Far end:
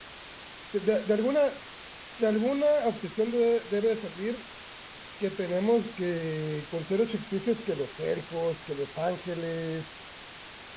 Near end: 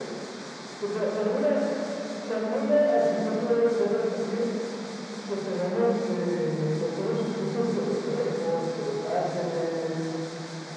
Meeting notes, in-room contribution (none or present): none